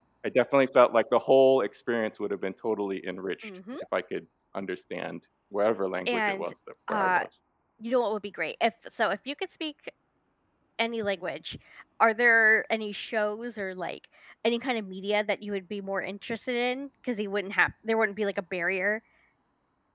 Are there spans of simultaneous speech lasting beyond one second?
No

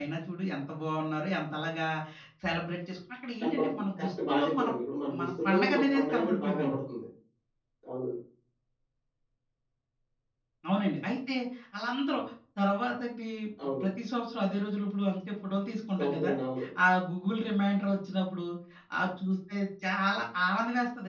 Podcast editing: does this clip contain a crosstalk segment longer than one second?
Yes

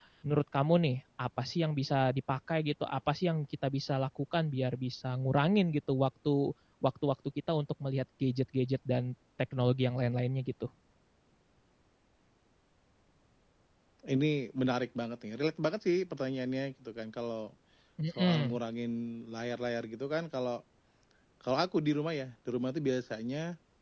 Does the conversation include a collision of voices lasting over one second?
No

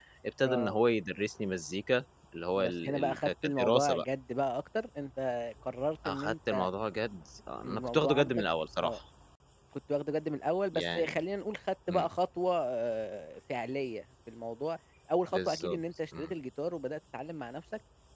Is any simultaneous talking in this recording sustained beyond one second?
Yes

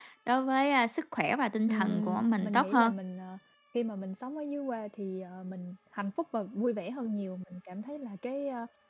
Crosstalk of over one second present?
Yes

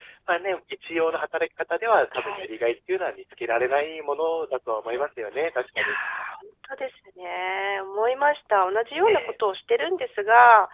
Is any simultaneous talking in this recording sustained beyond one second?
No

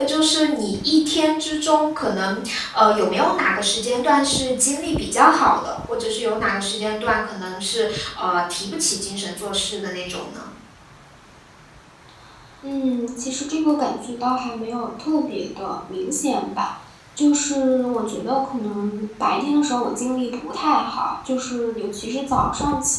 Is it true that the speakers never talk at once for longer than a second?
Yes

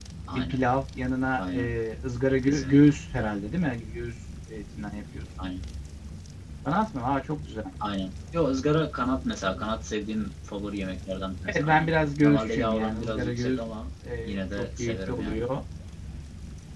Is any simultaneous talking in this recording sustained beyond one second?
Yes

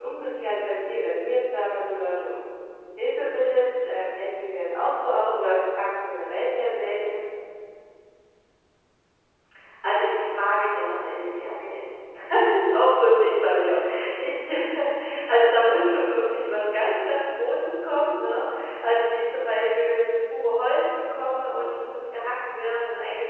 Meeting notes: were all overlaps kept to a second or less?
Yes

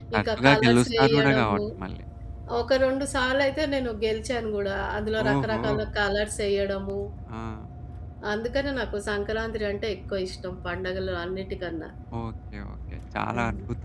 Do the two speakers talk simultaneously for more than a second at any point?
Yes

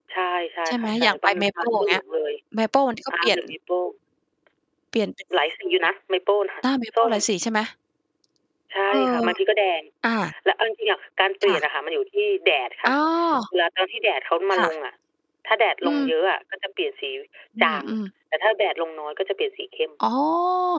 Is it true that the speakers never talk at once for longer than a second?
No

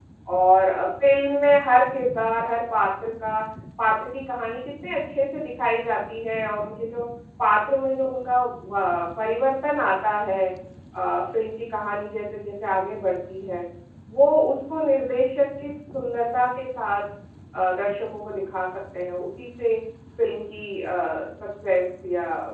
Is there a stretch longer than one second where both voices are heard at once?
No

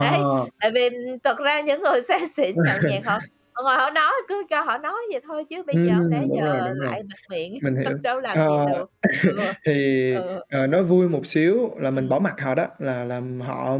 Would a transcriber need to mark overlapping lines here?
Yes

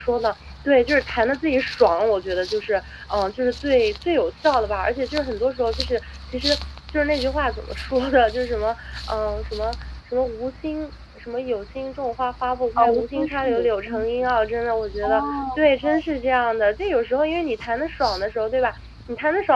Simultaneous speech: Yes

